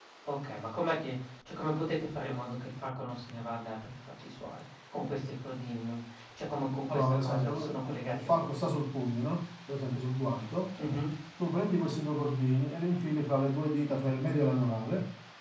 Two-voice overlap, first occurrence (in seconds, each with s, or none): 6.9 s